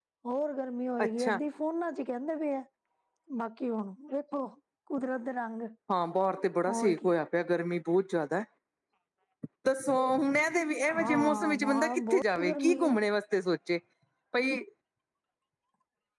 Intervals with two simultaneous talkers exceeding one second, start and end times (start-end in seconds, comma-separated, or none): 10.9-13.0